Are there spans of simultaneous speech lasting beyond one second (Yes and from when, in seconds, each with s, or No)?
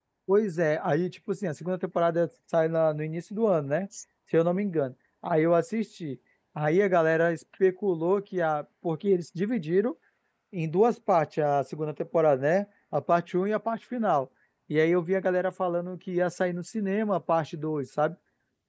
No